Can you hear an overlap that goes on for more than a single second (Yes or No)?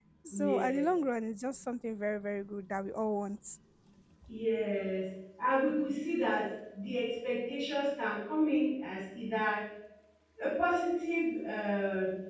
No